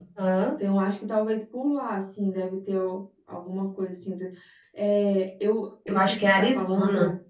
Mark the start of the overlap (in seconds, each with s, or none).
5.9 s